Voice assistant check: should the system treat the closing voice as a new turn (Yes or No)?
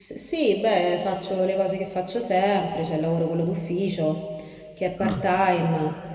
No